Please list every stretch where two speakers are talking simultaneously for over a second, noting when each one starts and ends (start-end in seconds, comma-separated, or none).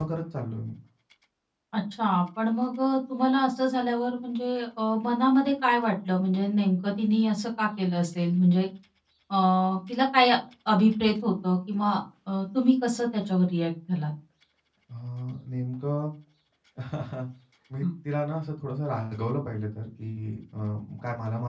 none